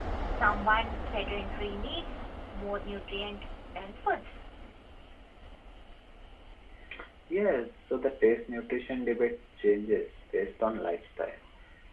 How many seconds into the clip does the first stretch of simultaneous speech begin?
none

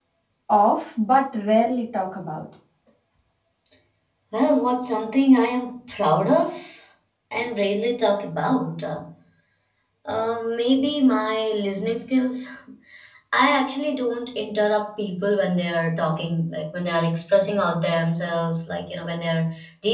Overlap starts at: none

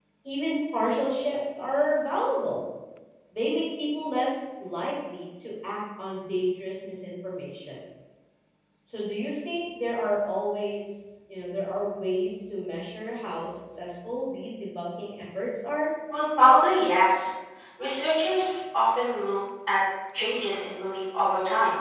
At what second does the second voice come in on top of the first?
none

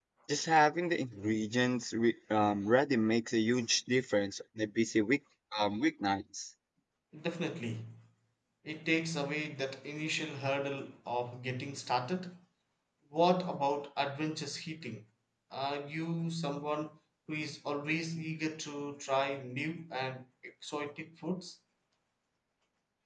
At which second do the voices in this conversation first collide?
none

